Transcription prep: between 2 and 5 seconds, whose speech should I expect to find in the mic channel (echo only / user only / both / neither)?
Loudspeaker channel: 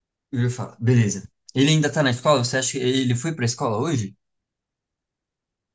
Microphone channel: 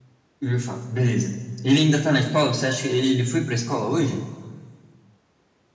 echo only